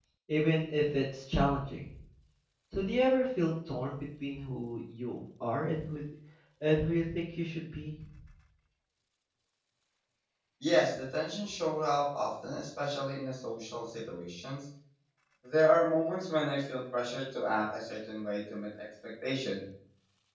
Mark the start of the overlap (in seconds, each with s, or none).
none